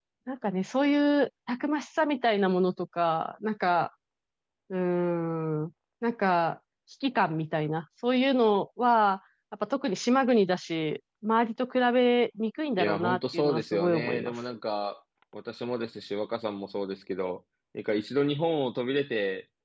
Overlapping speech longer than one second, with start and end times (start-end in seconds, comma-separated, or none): 12.8-14.3